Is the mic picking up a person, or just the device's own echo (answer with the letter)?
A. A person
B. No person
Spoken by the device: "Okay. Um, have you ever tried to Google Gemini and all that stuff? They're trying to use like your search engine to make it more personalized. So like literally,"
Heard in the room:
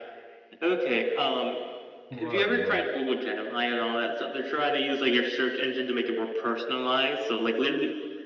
A